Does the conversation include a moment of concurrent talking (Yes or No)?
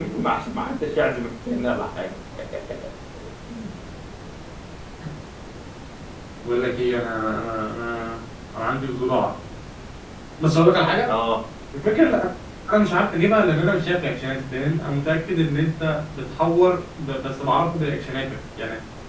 No